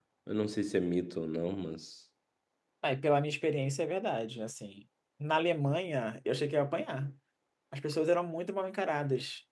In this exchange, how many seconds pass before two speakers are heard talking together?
none

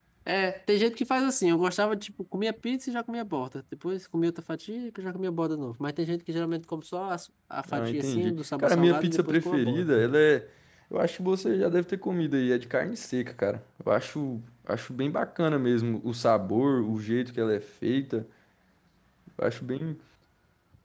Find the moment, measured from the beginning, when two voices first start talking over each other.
7.7 s

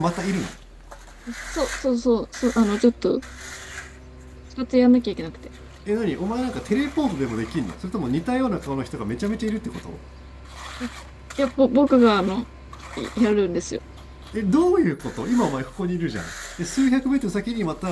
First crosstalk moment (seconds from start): none

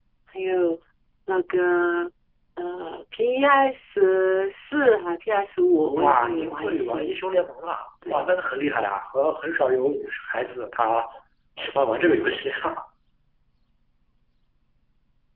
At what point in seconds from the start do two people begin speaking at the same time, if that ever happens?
6.0 s

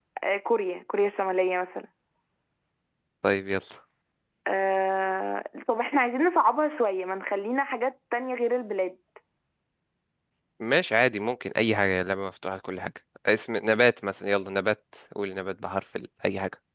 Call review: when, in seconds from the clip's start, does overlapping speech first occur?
none

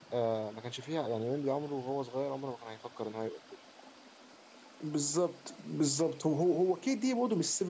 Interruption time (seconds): none

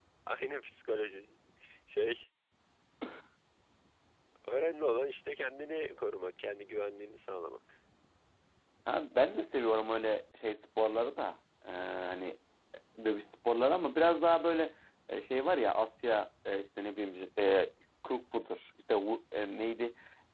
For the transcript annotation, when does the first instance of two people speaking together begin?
none

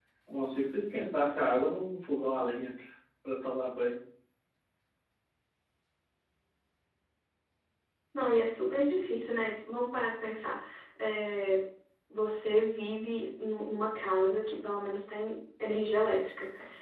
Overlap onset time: none

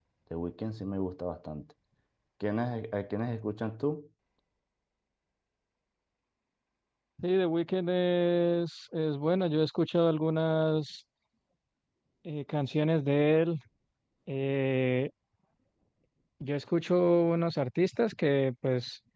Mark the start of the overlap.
none

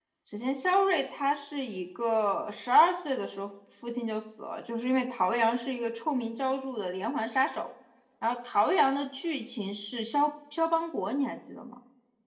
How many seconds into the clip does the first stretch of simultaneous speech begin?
none

